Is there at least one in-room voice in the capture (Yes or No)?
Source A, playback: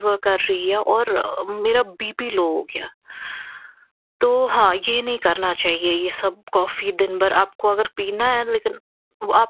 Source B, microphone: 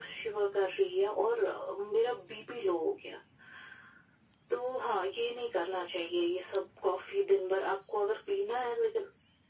No